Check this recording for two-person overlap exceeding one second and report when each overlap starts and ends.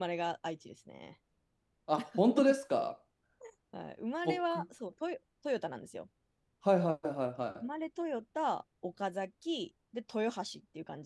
none

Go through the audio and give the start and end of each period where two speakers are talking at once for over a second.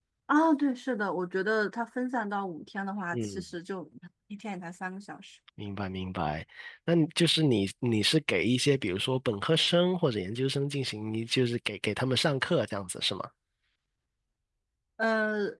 none

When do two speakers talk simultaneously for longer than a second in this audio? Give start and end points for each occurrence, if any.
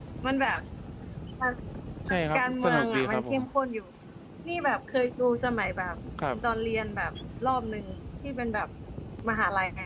2.1-3.4

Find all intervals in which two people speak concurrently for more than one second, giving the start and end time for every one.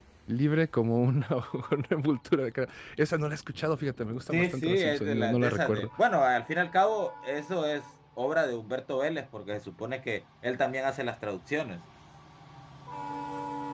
4.3-5.9

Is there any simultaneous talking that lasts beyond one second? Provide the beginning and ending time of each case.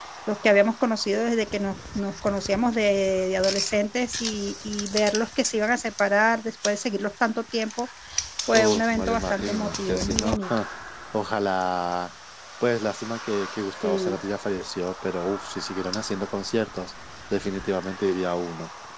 8.5-10.5

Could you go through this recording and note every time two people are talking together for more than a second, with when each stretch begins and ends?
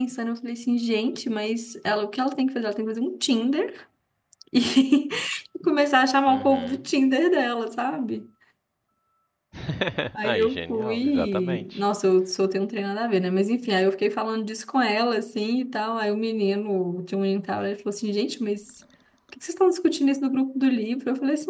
10.2-11.6

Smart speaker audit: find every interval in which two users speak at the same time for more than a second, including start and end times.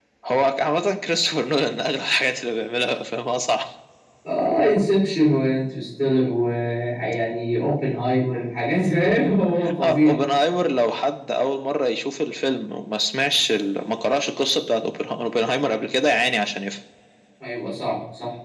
none

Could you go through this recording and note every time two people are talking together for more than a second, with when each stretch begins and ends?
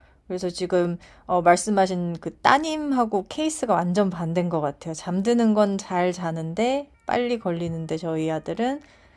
none

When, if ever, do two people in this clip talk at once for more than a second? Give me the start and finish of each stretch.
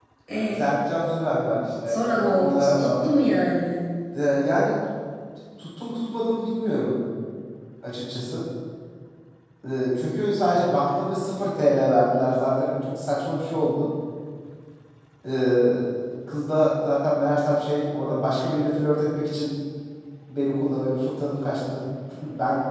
1.8-3.1

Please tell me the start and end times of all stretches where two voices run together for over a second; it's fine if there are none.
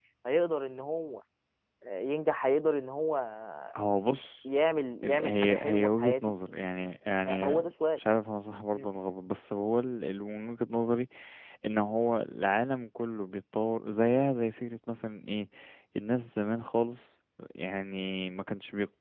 5.0-6.3

